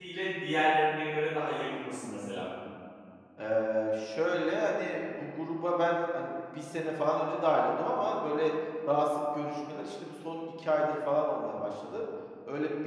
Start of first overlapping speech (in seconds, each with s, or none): none